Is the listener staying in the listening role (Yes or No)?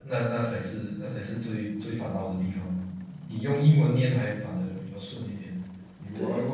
Yes